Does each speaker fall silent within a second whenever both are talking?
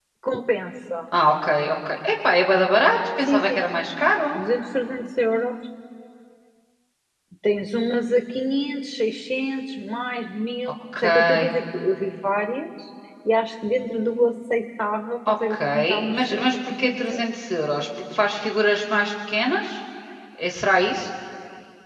No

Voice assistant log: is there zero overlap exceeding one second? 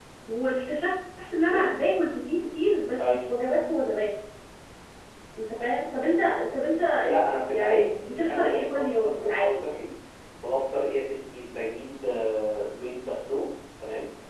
No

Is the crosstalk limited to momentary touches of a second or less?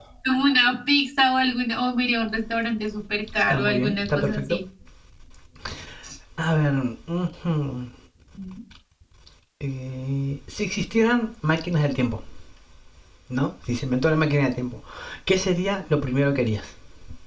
No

